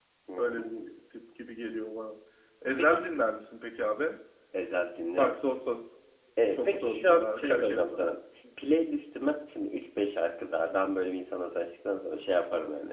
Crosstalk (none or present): present